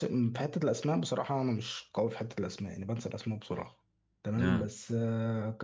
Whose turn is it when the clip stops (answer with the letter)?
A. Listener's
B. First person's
B